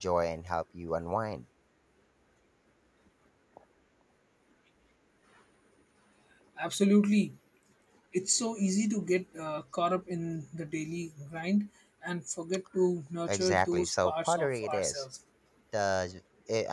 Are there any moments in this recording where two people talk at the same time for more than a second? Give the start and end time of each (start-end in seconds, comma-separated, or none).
13.3-15.0